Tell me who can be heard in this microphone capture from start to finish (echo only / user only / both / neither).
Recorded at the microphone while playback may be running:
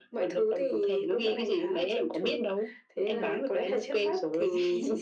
echo only